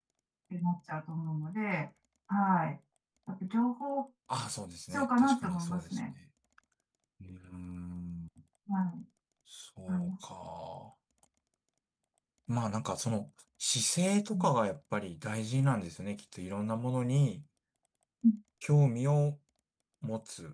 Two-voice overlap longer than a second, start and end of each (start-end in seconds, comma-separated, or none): 4.8-6.1